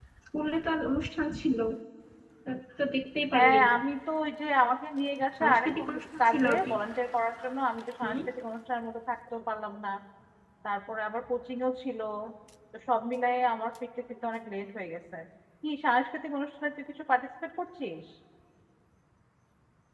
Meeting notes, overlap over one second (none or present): present